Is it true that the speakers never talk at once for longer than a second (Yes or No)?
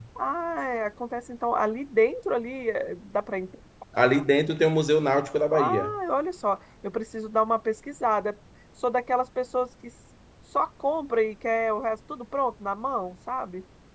Yes